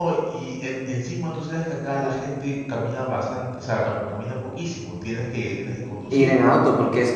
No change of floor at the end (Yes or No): No